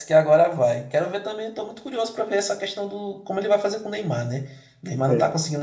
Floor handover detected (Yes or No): No